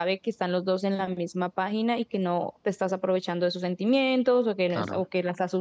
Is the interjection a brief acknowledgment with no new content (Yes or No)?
Yes